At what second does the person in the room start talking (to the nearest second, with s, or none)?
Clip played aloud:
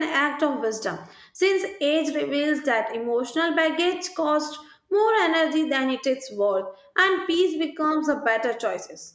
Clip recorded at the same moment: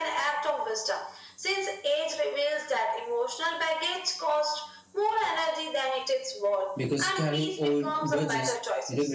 7 s